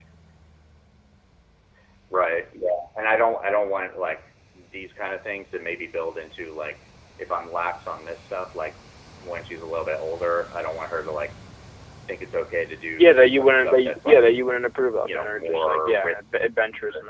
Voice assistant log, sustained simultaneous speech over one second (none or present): present